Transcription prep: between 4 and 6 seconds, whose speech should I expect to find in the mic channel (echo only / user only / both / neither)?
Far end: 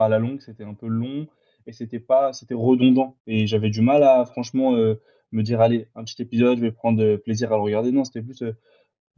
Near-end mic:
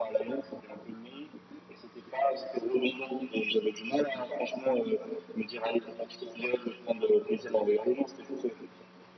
echo only